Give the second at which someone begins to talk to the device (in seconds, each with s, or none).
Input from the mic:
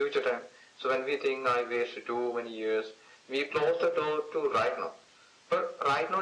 none